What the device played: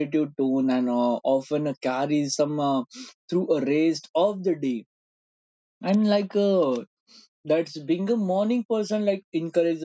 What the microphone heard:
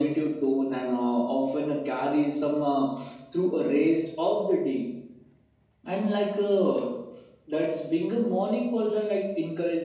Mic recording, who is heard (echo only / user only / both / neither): echo only